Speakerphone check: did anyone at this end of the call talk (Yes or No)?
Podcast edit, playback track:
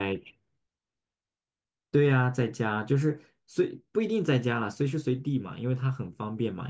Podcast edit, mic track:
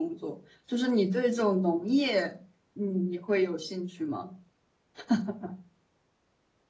Yes